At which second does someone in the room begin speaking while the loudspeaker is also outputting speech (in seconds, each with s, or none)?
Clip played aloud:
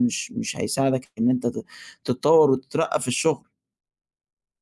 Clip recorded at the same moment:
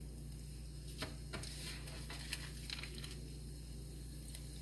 none